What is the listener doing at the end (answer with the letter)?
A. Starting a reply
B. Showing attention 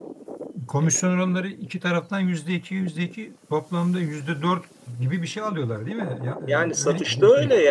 A